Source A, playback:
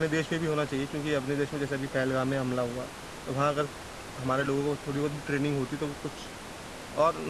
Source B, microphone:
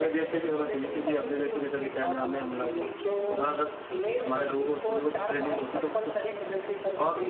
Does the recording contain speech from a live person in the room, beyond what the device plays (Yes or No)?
Yes